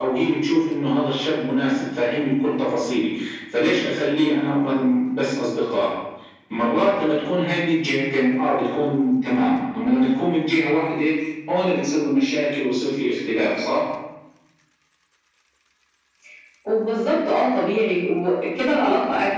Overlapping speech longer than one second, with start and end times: none

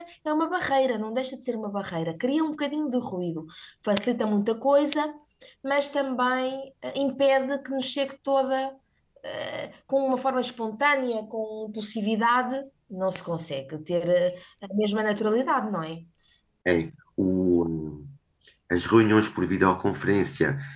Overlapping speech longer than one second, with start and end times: none

